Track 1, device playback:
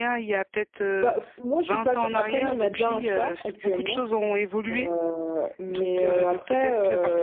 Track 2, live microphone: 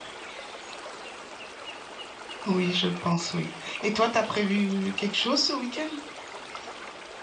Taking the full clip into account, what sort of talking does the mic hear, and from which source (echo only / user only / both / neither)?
user only